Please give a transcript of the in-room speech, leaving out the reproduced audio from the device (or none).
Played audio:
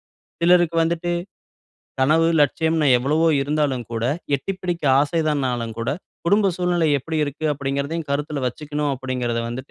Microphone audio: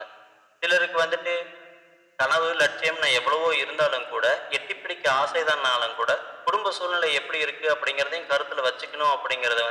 none